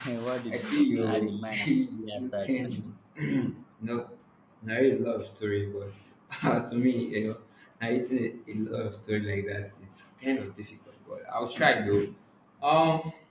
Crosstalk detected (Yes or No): Yes